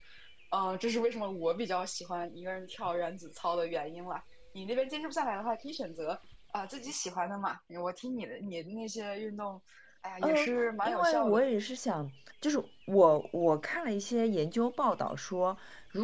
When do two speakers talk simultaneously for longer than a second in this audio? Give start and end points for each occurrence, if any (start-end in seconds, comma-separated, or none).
10.2-11.4